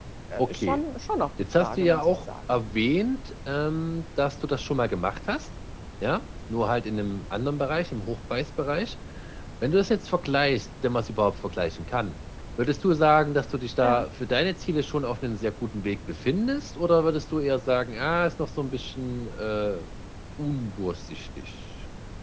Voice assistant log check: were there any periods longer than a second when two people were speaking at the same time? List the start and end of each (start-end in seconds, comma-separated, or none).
1.4-2.6